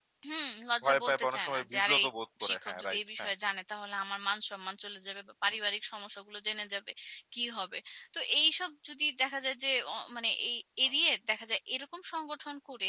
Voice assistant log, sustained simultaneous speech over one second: present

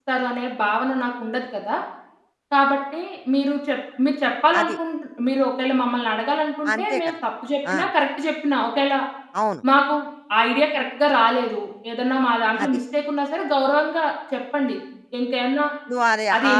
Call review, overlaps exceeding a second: none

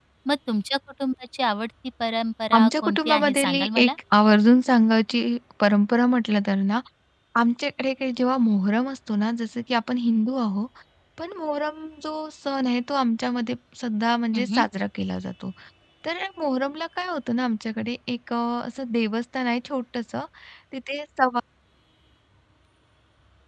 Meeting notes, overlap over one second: present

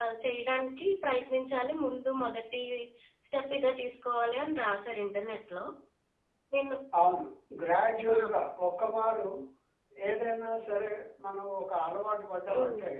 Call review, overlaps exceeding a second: none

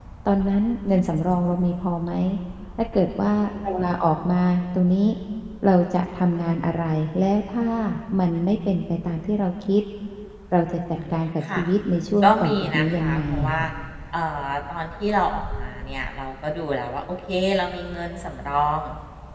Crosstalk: present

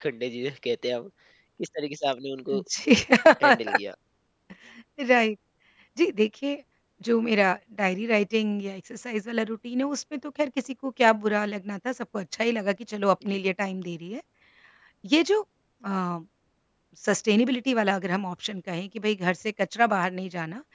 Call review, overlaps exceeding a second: none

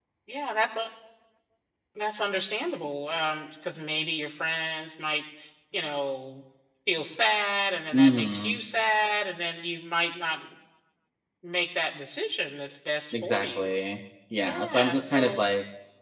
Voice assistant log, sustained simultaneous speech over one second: present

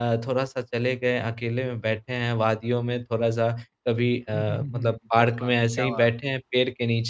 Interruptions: present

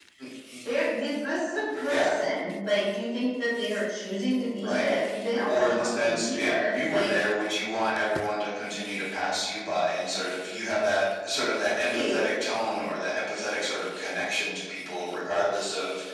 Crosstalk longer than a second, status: present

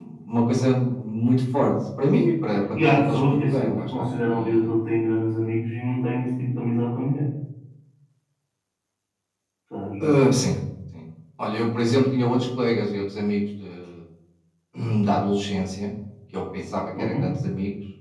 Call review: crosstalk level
present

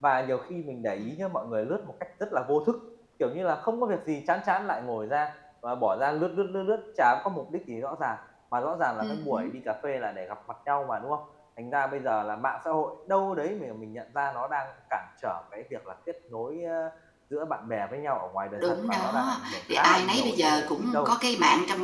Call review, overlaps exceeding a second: present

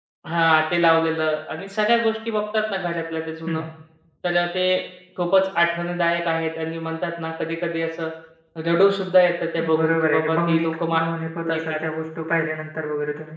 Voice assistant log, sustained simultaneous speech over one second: present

